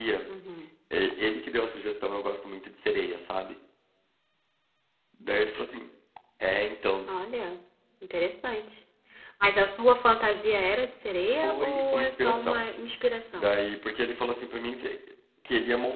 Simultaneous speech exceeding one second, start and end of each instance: 11.3-12.6

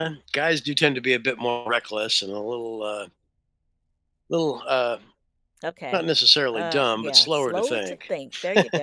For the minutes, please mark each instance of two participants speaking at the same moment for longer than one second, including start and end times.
6.5-8.0

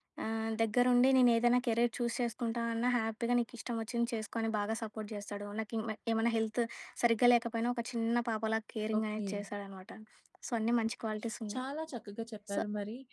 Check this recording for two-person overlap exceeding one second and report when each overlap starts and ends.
none

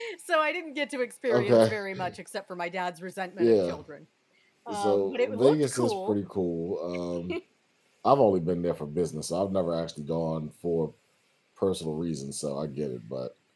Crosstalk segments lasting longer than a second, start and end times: 4.7-6.2

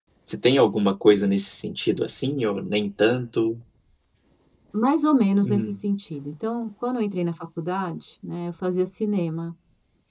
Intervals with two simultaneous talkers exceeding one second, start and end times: none

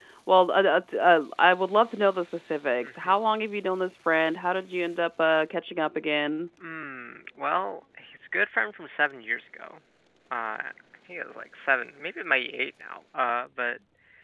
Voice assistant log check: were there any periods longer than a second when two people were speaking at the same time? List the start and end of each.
none

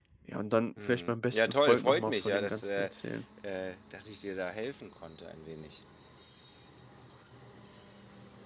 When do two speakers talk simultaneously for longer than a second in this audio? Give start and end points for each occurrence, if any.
0.8-2.9

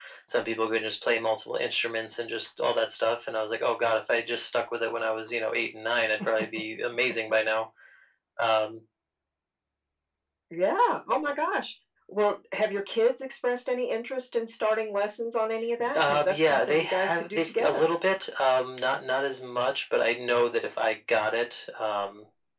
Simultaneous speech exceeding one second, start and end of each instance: 15.9-17.8

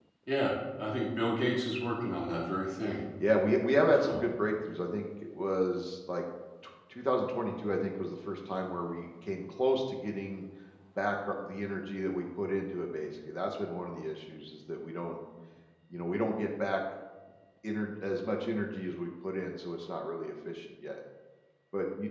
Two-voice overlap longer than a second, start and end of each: none

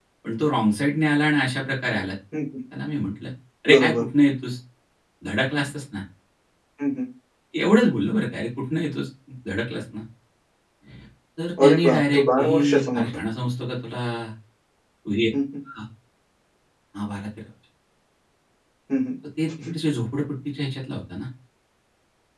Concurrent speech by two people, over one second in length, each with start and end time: 11.6-13.2

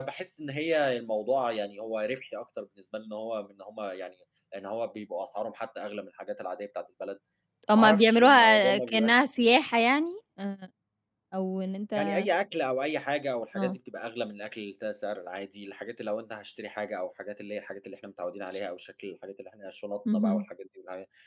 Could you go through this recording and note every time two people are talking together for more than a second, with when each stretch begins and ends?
7.8-9.2

